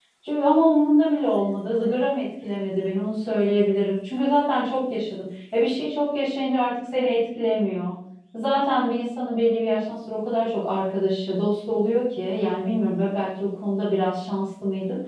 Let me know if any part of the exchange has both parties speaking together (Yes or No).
No